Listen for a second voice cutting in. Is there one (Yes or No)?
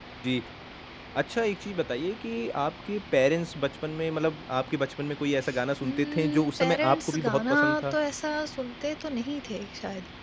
Yes